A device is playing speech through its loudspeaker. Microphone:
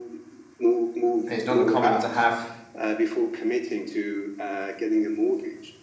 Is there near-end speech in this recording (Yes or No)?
Yes